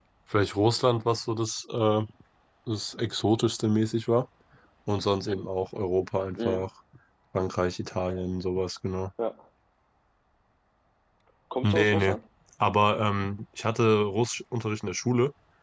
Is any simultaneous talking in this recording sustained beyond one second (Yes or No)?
No